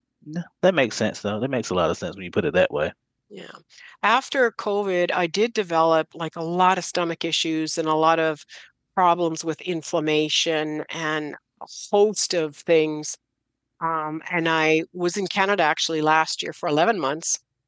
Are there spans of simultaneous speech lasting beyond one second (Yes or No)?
No